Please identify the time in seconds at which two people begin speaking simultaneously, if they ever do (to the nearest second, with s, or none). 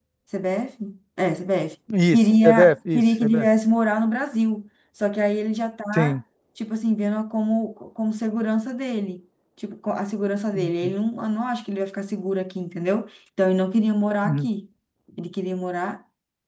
2 s